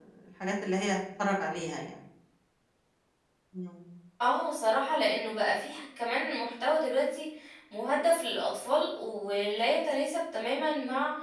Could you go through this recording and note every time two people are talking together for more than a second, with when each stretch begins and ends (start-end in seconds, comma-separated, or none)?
none